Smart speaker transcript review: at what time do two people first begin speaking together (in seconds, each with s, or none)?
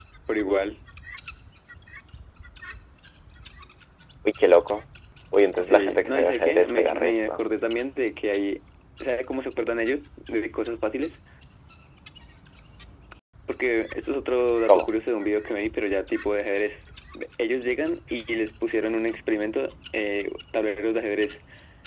5.6 s